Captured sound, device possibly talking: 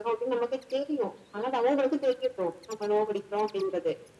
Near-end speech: none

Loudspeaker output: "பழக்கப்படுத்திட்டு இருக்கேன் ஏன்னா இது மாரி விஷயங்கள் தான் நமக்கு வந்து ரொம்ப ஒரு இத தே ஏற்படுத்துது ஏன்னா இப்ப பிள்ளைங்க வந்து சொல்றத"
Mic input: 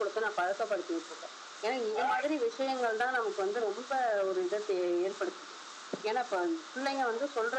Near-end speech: none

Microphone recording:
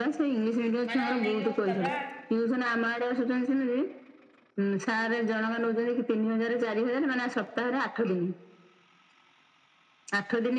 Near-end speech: present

